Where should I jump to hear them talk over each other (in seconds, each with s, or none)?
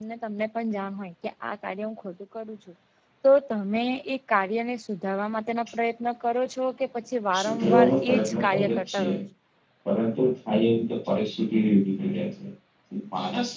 7.3 s